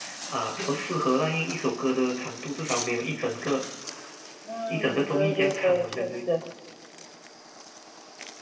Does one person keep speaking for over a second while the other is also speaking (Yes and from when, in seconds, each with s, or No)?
Yes, from 4.7 s